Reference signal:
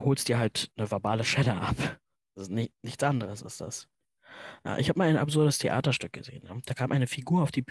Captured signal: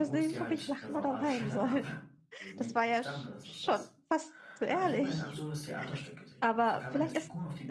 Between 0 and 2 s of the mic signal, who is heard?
both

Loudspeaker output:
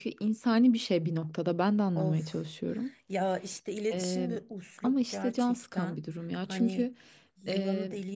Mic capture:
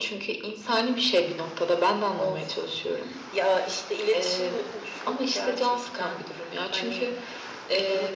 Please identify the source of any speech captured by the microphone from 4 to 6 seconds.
echo only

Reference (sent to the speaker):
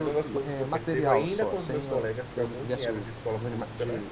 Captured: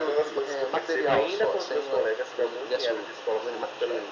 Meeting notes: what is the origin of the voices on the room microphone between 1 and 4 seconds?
echo only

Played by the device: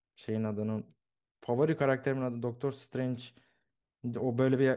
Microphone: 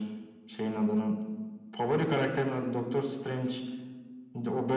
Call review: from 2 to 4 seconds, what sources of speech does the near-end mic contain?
echo only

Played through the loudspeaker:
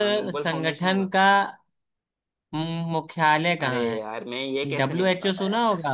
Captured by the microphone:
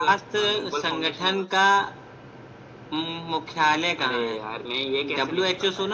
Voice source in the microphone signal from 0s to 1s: echo only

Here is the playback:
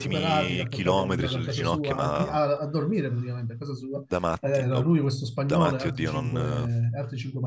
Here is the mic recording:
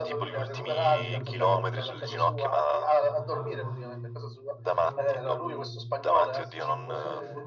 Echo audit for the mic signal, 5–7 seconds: both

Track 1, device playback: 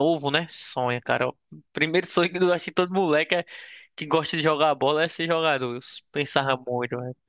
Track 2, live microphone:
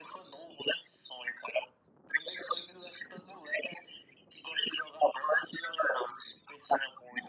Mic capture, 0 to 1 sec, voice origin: echo only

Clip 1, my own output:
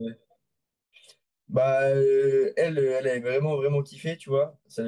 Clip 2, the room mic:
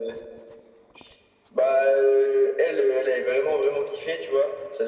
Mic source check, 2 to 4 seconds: echo only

